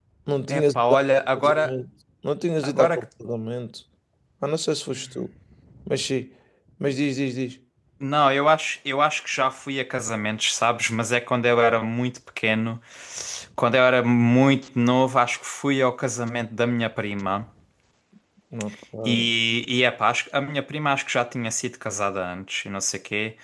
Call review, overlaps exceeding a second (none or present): present